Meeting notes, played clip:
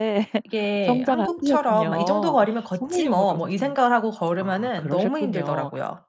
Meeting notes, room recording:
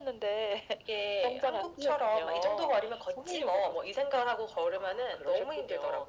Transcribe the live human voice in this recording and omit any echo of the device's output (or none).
none